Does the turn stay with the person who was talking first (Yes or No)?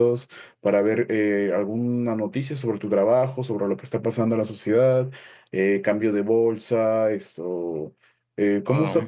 Yes